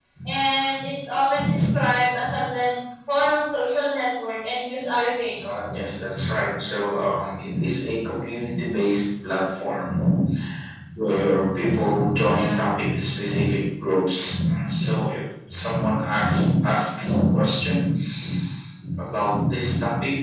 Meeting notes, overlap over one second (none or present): none